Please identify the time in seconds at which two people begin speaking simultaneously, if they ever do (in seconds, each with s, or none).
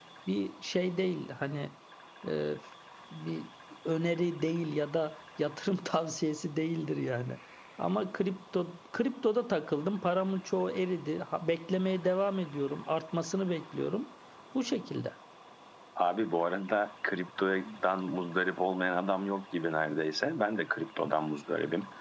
none